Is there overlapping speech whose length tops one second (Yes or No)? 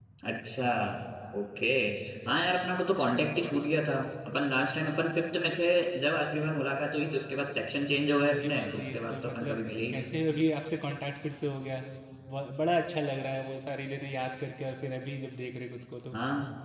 Yes